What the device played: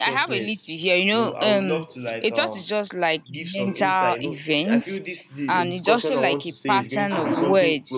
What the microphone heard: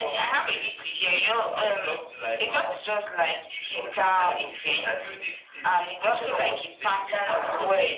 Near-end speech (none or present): none